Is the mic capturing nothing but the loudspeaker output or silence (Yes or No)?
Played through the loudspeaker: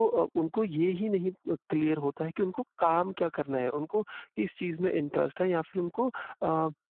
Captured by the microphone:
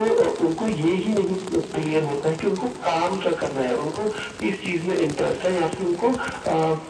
Yes